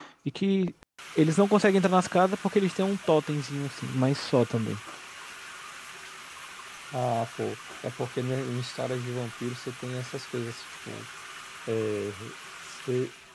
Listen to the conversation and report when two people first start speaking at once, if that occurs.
none

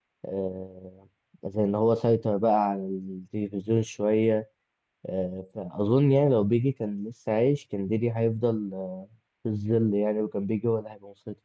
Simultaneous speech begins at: none

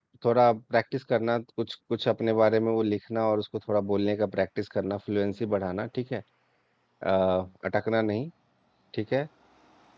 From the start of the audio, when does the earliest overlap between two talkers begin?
none

